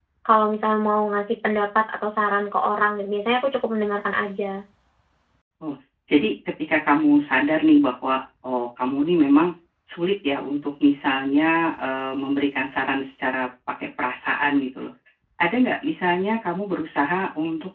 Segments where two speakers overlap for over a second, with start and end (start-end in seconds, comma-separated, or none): none